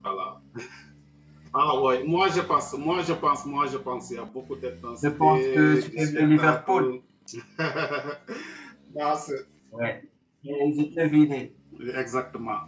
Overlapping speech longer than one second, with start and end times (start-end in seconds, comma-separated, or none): 5.0-6.7